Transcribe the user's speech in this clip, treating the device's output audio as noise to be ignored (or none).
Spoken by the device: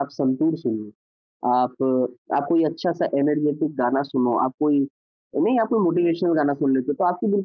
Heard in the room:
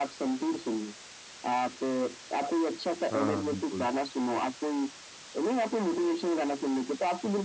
हाँ, बिल्कुल,